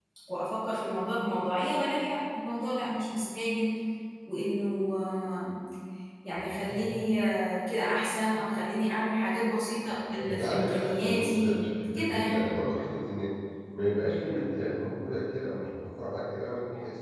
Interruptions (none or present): present